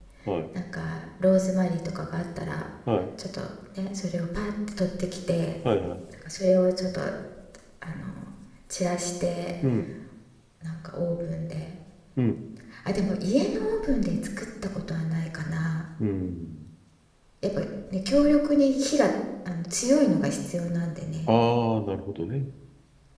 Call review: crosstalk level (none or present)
none